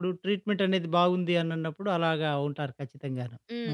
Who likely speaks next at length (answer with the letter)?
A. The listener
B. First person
A